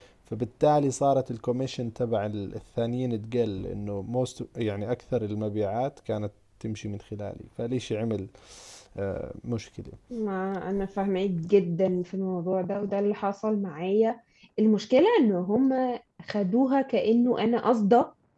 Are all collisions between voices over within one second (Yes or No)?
Yes